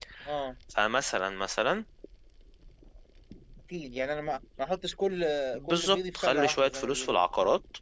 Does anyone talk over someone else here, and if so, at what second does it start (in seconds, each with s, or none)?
5.6 s